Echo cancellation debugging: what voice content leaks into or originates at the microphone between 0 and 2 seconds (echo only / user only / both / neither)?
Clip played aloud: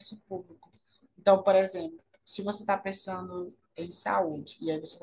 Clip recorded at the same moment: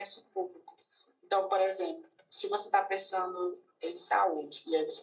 echo only